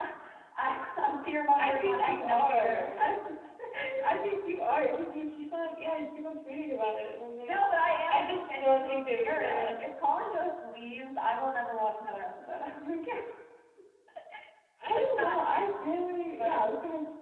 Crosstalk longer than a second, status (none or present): present